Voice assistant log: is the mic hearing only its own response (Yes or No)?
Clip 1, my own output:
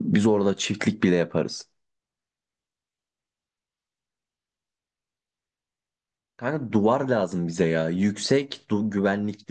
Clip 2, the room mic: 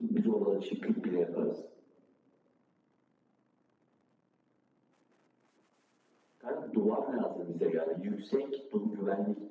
Yes